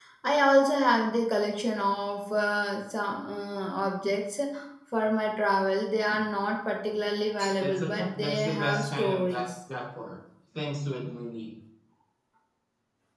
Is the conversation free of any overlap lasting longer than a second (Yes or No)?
No